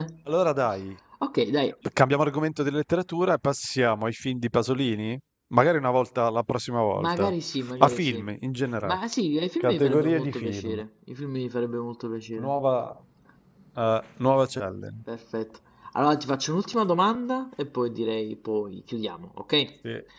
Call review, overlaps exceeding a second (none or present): present